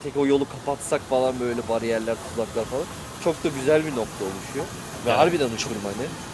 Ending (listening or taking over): listening